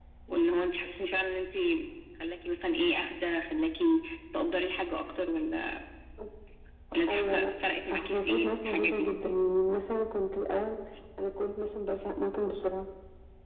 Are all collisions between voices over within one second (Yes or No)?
No